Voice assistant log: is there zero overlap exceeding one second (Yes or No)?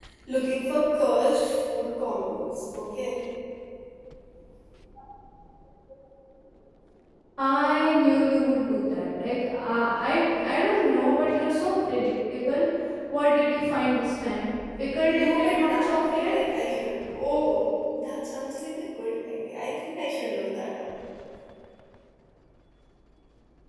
No